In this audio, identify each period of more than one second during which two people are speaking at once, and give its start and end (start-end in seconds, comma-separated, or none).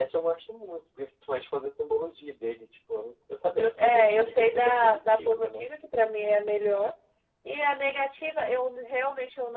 3.8-5.6